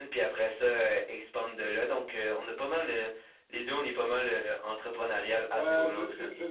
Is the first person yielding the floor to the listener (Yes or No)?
Yes